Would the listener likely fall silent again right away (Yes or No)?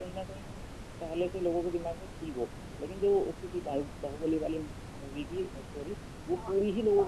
No